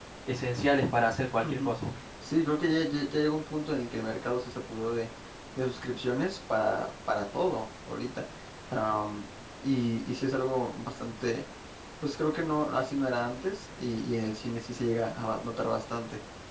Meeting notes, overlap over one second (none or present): none